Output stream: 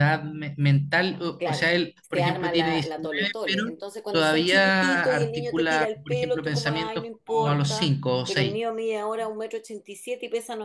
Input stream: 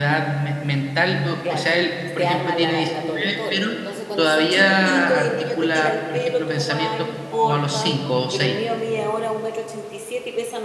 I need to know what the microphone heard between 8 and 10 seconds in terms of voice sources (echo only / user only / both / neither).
echo only